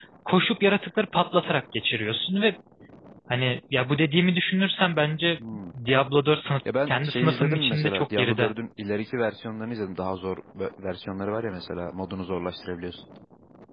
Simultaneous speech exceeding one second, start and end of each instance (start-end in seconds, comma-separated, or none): 6.9-8.5